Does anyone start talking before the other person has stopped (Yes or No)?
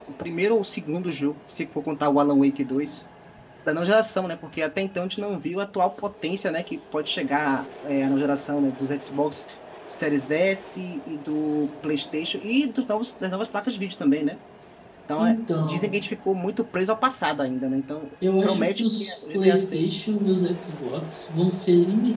Yes